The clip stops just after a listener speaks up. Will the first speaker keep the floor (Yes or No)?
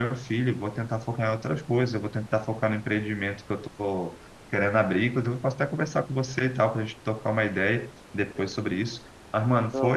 Yes